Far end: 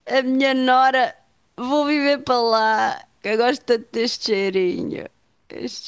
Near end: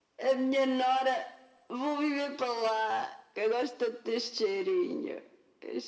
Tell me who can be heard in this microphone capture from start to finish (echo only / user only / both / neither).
echo only